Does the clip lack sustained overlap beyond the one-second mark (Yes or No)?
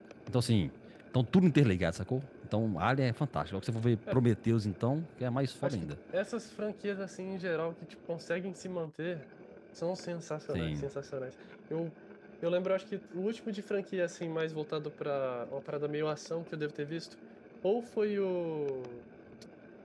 Yes